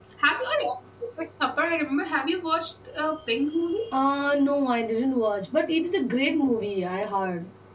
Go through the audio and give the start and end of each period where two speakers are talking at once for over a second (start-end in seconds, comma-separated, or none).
none